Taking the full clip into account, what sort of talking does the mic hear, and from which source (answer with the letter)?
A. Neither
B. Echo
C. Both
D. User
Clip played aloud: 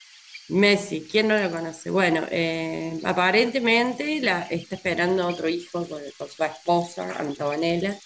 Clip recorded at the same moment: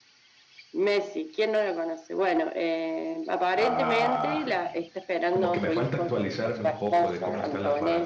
C